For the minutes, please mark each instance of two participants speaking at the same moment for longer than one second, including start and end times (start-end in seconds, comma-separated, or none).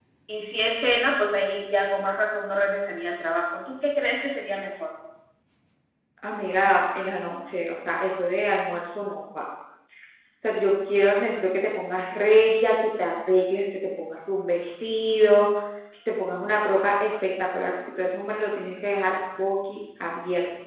none